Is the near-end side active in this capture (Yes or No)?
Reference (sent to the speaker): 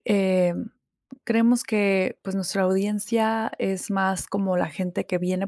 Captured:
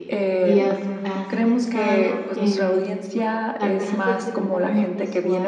Yes